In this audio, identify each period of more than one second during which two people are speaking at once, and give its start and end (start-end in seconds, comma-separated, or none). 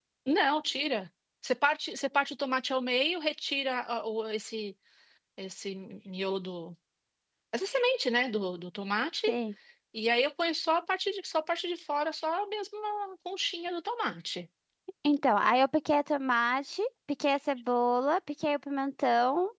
none